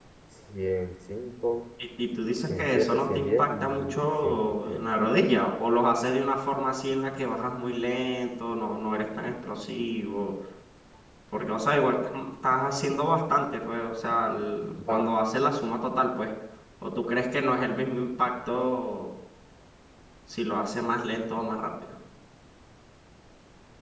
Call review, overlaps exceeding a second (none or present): present